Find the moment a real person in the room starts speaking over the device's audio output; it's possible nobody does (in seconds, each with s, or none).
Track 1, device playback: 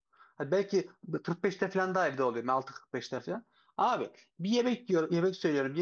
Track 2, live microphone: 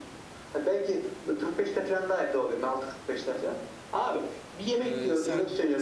4.8 s